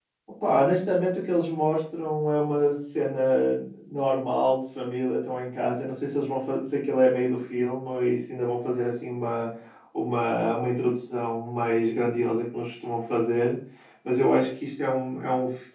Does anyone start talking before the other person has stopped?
No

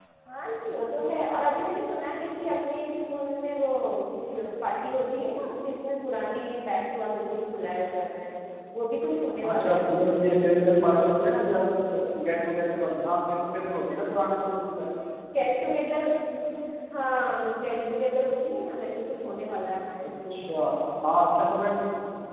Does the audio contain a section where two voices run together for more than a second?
No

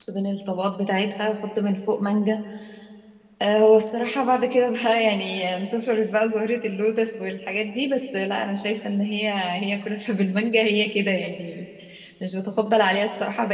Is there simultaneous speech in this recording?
No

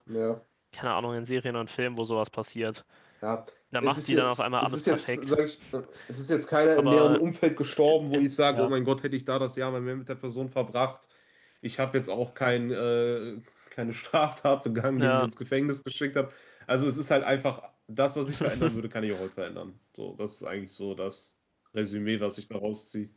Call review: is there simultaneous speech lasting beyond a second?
Yes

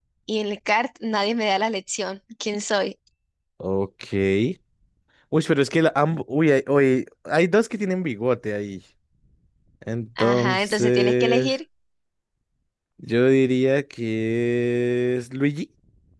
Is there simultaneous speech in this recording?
Yes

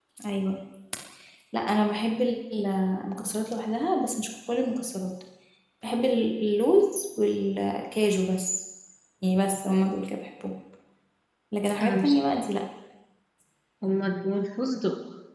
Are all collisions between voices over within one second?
Yes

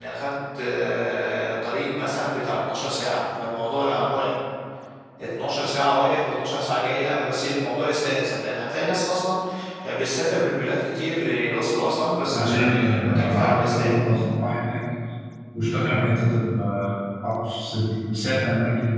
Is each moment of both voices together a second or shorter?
No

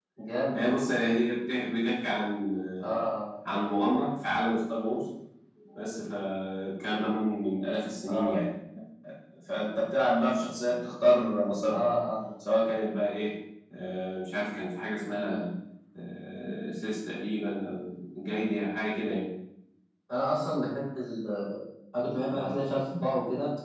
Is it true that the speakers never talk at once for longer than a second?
Yes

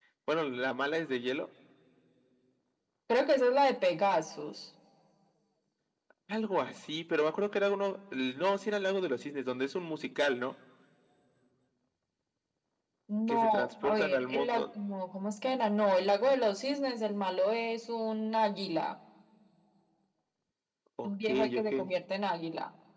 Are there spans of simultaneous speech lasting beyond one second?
Yes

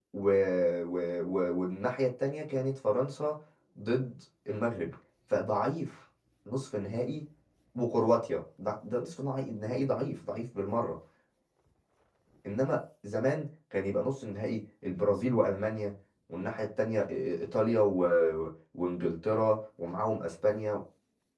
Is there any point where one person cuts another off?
No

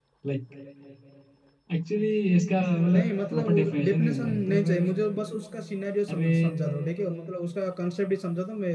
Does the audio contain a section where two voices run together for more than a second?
Yes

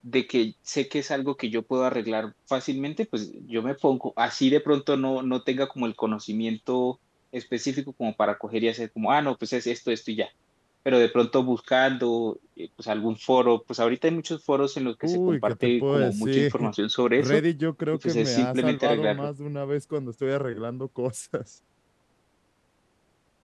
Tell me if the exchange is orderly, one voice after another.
No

